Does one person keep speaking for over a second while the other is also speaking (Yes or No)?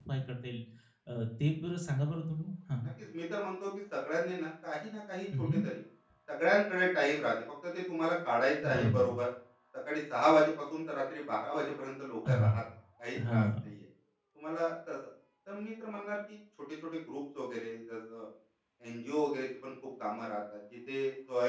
No